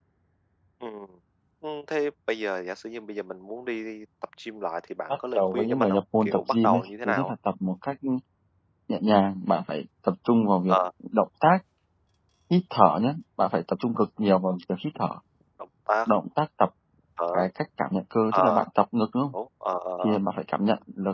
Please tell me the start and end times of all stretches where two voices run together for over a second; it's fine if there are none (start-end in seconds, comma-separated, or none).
5.1-7.3